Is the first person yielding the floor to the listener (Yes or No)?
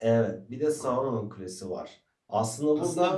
Yes